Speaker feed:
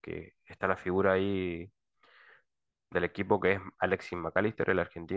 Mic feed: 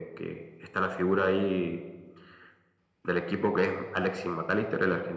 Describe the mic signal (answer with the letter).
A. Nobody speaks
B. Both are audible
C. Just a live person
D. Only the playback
D